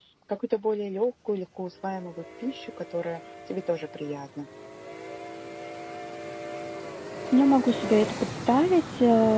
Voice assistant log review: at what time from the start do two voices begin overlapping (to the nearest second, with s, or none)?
none